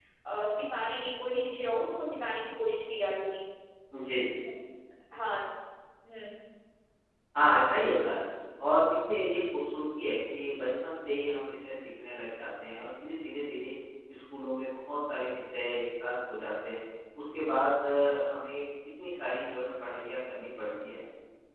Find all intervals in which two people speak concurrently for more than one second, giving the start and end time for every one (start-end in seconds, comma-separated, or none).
none